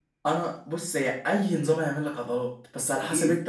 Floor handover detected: No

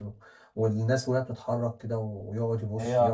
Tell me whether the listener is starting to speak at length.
No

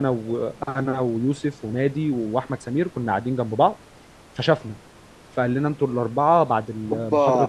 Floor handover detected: Yes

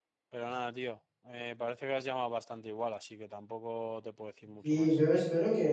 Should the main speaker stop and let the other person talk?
Yes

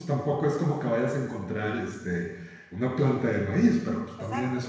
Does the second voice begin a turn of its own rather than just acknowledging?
No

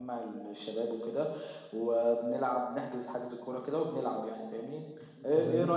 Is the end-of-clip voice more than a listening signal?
No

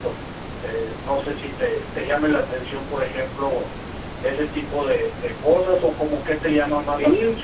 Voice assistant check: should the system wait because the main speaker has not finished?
No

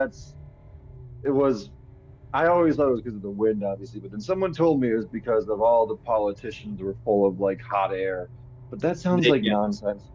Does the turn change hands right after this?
No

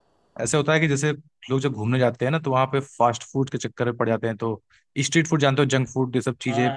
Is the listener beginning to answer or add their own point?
Yes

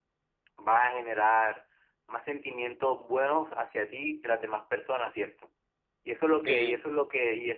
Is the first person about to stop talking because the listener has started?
No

